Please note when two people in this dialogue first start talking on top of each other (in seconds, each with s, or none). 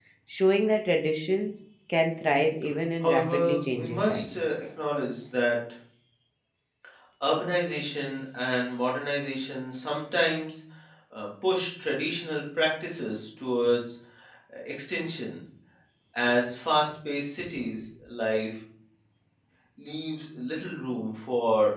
3.0 s